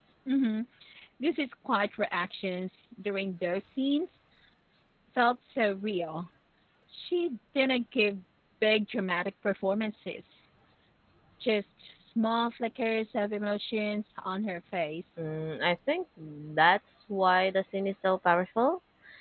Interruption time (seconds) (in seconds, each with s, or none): none